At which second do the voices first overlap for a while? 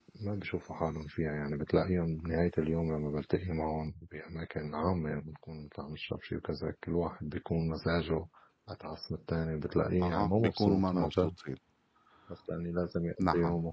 10.0 s

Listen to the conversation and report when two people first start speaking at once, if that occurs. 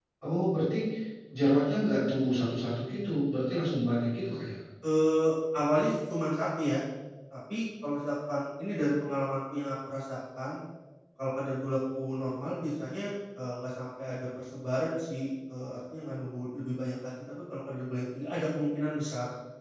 none

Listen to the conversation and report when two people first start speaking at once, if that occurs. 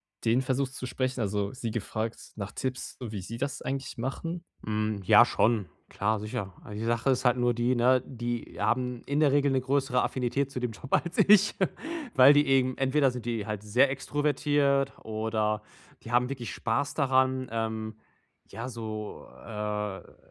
none

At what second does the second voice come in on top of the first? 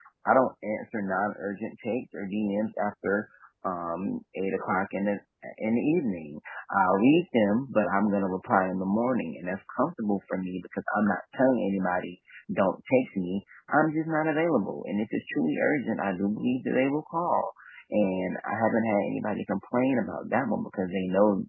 none

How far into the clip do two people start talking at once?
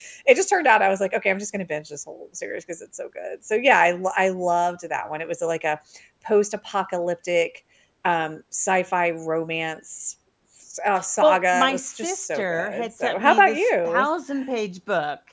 11.0 s

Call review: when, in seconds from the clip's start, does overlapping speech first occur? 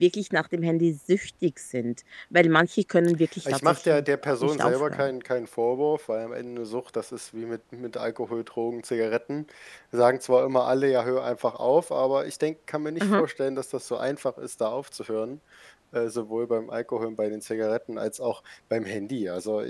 3.5 s

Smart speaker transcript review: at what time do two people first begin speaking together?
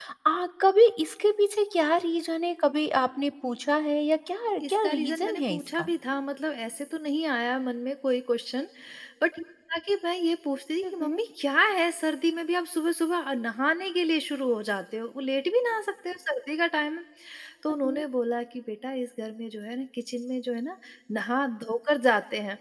4.6 s

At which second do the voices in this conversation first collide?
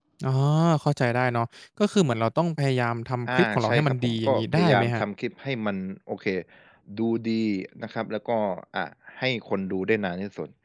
3.3 s

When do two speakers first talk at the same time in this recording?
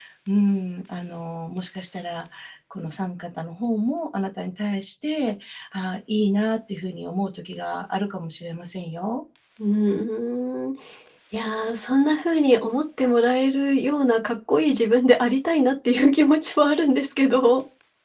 none

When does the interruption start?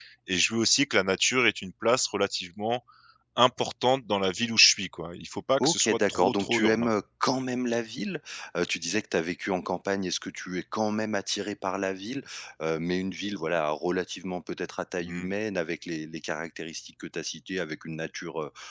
5.6 s

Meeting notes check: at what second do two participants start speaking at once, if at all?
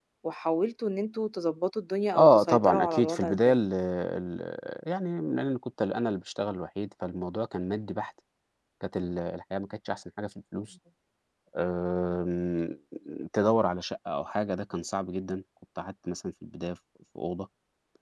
2.2 s

